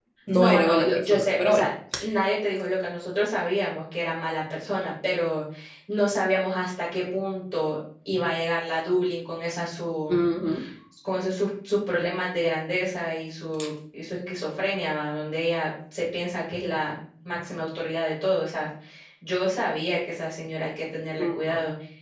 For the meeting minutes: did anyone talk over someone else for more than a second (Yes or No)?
Yes